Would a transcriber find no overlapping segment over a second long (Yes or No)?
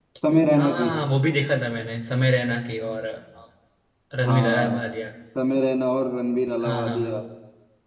Yes